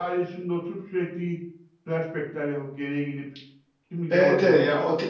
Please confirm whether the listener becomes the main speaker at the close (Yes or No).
Yes